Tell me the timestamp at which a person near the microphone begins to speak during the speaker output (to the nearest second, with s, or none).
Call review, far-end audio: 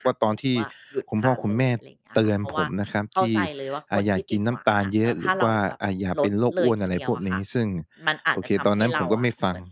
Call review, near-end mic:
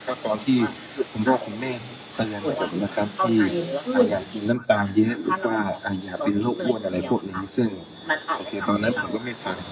2 s